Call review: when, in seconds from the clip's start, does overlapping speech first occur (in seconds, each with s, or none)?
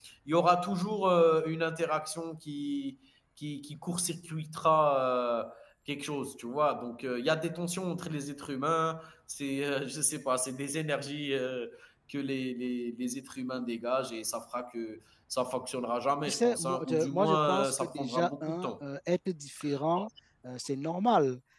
16.3 s